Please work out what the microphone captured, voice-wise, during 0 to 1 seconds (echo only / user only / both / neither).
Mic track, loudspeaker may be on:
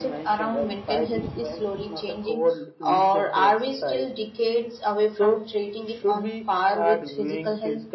echo only